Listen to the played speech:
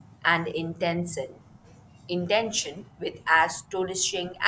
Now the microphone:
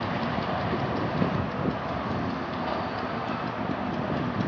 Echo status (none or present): none